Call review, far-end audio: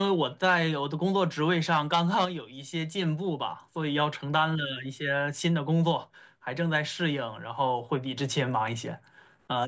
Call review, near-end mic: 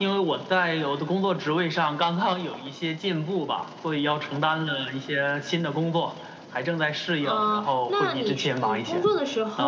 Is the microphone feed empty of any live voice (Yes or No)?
No